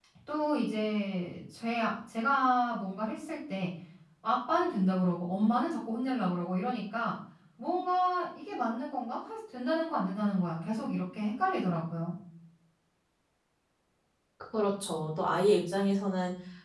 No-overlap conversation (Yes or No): Yes